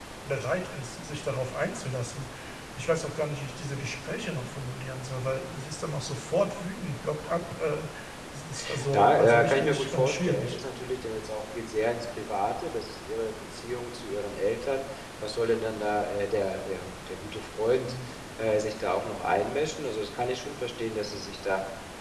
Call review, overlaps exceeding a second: present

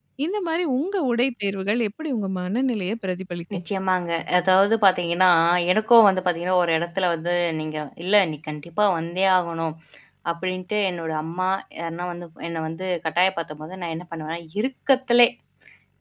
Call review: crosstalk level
none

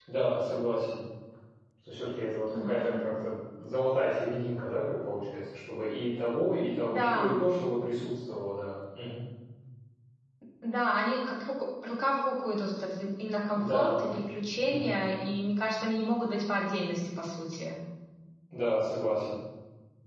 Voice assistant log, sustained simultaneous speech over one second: none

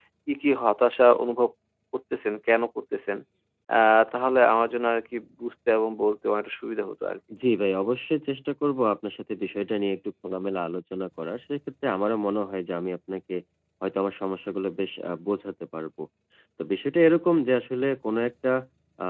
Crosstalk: none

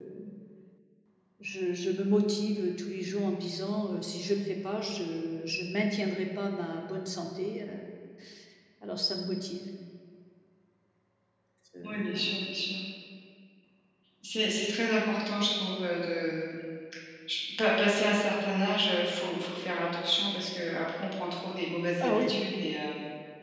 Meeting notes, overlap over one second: none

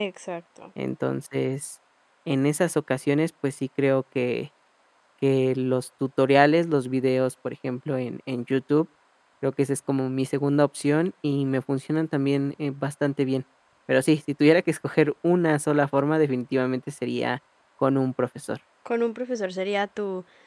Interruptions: none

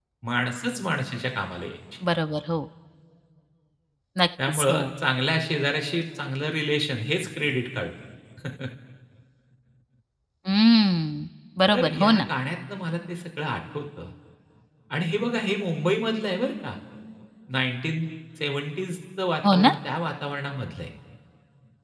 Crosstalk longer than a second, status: none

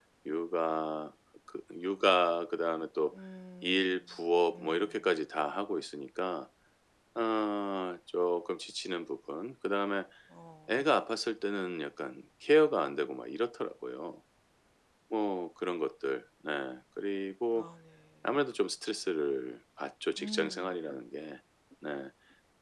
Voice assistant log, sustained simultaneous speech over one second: present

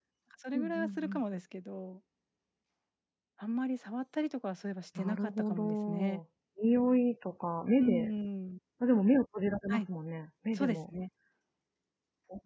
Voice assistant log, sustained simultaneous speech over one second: present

